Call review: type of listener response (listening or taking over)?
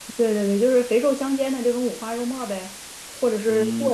taking over